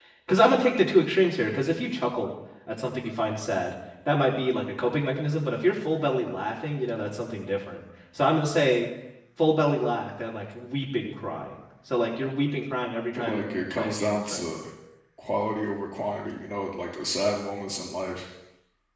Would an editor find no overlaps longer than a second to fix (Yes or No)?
No